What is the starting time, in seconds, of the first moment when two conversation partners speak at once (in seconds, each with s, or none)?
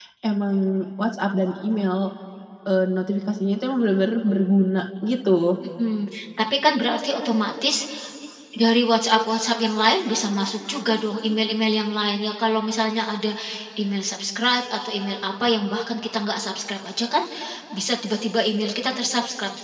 none